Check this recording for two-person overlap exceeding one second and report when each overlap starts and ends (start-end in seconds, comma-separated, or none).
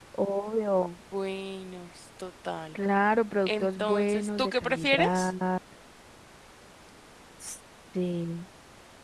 3.5-5.3